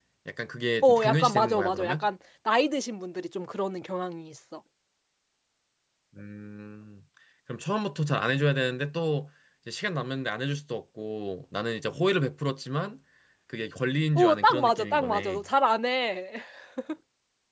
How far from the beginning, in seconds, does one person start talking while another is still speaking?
1 s

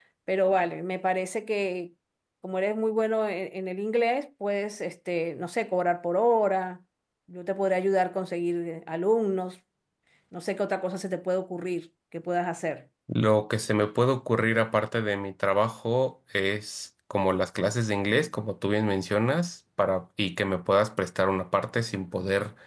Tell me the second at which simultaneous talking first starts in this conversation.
none

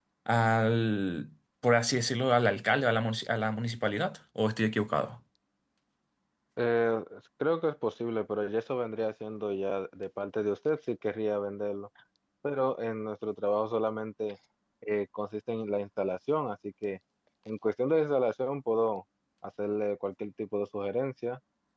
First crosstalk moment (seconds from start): none

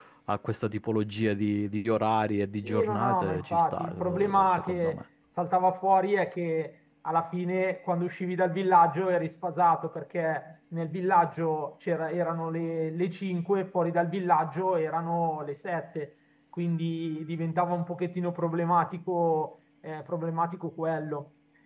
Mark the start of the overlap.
3 s

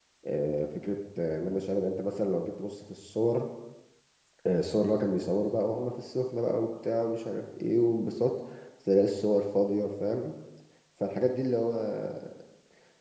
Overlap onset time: none

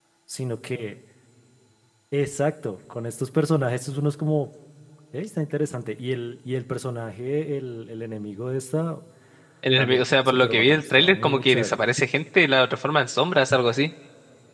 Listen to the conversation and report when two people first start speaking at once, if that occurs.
10 s

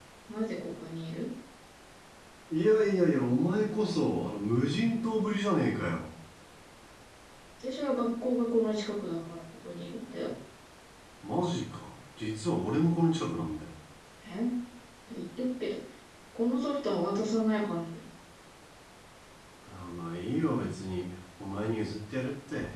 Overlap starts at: none

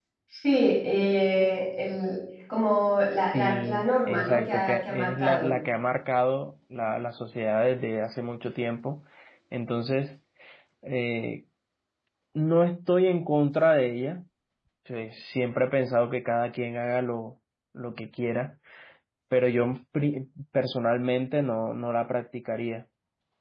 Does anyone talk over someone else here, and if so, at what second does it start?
3 s

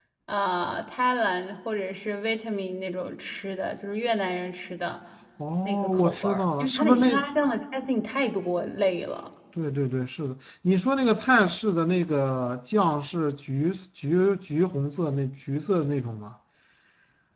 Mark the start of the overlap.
6 s

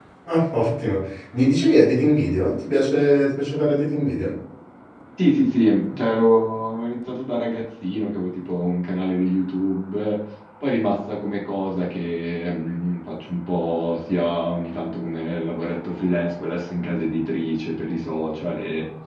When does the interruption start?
none

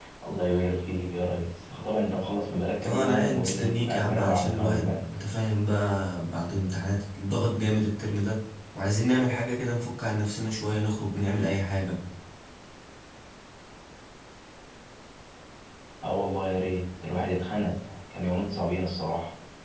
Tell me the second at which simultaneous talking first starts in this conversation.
3 s

